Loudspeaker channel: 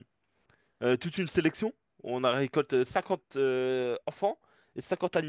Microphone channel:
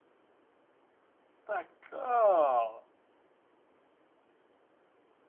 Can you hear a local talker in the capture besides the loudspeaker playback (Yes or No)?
Yes